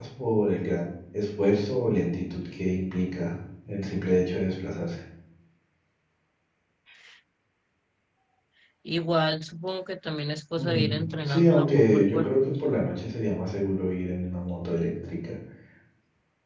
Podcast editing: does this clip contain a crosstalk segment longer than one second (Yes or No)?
Yes